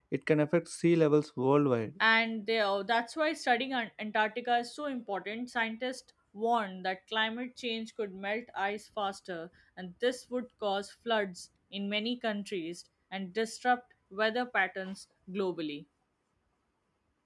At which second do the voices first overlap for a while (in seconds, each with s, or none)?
none